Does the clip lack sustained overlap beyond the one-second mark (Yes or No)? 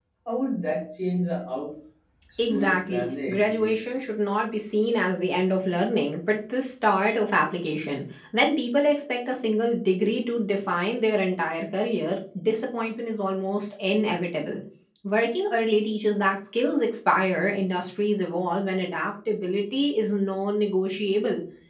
No